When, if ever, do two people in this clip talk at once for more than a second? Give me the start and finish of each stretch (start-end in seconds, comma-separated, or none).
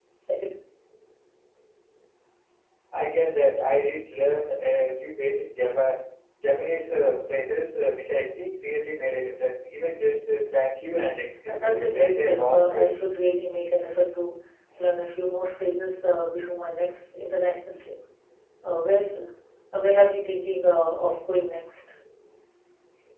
11.5-12.9